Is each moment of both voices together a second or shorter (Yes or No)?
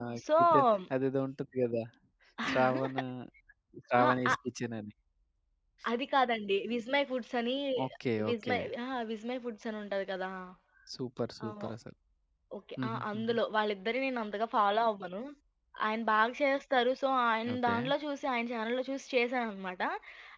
Yes